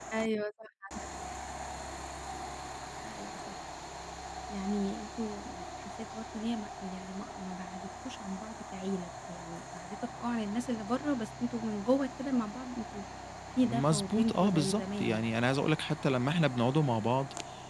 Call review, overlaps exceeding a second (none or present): present